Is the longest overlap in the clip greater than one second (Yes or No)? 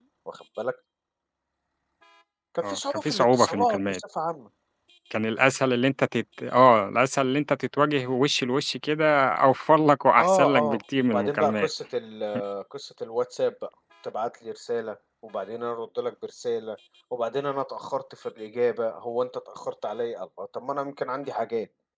Yes